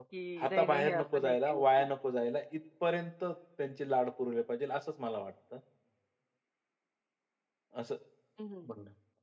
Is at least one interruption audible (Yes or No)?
Yes